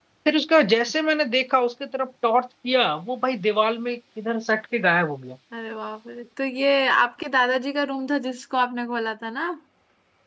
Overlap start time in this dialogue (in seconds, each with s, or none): none